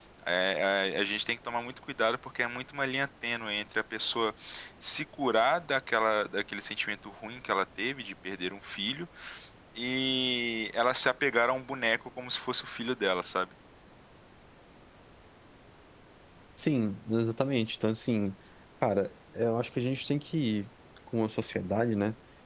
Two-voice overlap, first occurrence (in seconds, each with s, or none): none